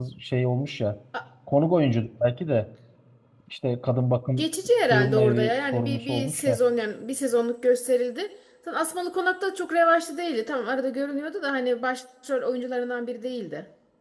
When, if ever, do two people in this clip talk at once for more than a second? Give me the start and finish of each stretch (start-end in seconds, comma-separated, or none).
4.9-6.6